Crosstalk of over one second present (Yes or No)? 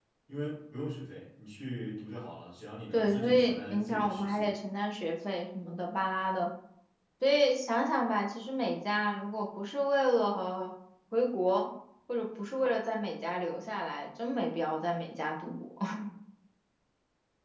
Yes